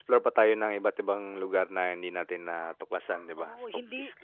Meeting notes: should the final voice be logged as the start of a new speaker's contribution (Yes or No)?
Yes